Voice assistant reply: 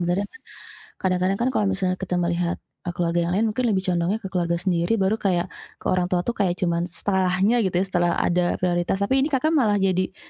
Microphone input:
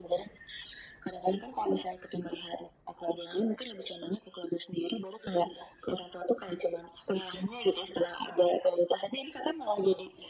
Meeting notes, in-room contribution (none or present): none